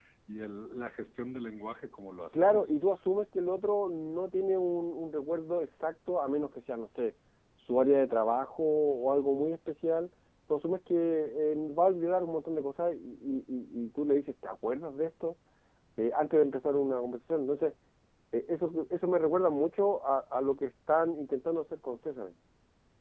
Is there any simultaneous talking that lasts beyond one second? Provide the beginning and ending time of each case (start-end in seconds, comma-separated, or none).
none